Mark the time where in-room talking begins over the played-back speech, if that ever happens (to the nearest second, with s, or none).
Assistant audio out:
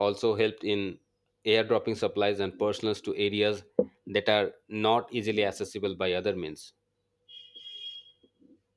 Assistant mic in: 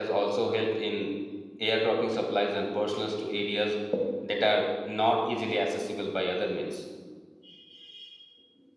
none